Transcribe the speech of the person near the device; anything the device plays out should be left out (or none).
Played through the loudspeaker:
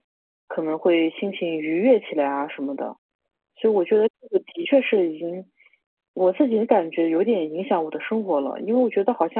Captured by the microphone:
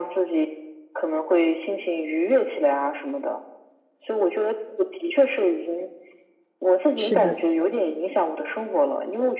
是的，